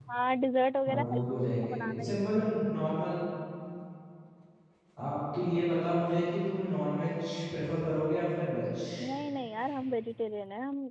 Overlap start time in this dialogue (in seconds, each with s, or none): 0.9 s